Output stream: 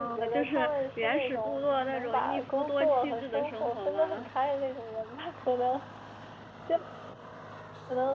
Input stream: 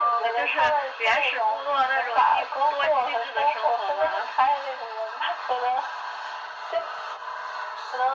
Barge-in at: none

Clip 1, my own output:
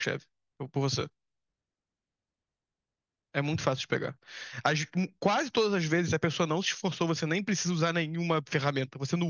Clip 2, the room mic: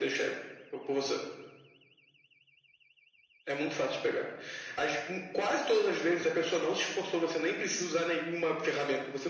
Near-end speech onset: none

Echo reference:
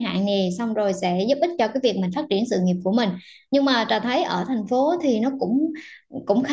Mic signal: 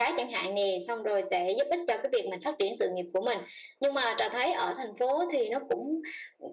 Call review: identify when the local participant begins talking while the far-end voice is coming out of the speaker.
none

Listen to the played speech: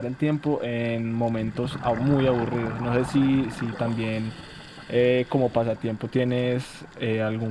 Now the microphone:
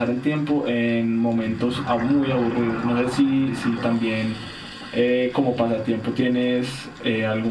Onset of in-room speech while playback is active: none

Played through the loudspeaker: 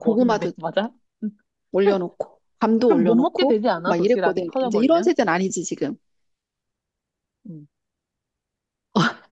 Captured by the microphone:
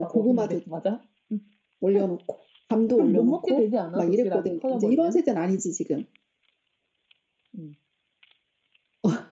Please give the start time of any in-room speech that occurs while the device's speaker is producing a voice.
3 s

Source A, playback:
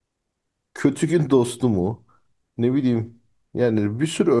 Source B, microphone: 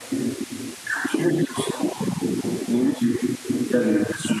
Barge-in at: none

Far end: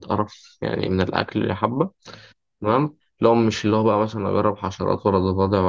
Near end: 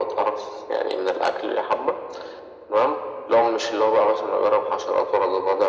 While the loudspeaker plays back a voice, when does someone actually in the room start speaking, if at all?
none

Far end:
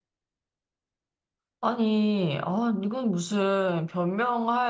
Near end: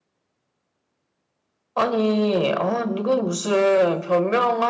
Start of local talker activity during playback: none

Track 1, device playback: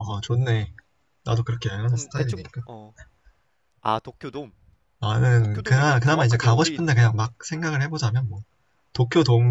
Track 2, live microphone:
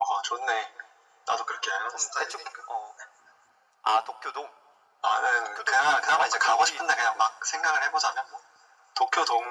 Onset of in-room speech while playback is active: none

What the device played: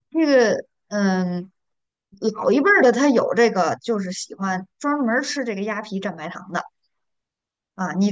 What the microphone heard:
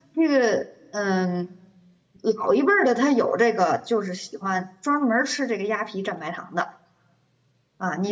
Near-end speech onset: none

